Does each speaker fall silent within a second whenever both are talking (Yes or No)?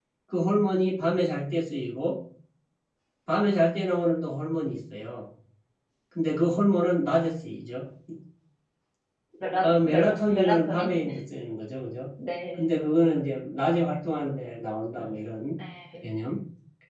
No